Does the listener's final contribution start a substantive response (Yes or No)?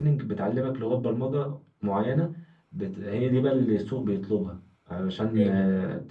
No